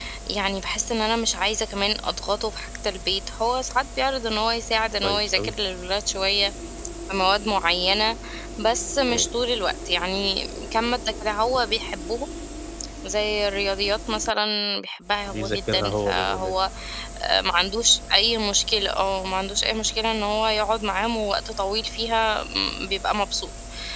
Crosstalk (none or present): present